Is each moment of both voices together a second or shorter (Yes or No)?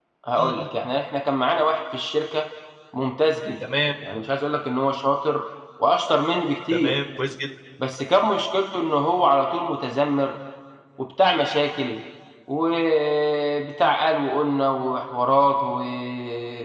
Yes